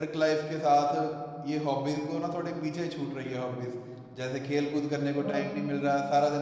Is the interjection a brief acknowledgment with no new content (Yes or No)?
Yes